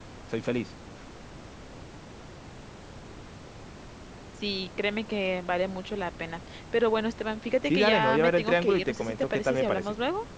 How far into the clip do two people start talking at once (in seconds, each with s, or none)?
7.7 s